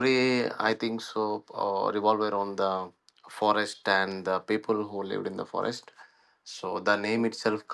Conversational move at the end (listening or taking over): listening